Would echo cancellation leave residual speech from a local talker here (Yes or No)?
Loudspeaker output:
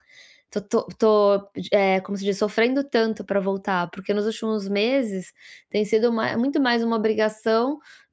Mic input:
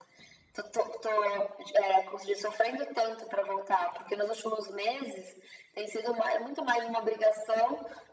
No